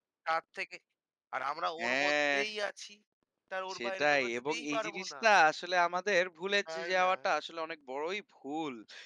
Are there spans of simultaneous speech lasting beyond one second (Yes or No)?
Yes